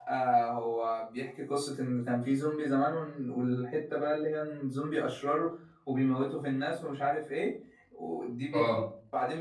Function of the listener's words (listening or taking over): listening